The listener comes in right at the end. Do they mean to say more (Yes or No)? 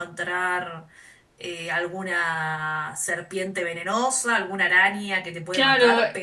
Yes